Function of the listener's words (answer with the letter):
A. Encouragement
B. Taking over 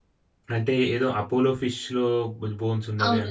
B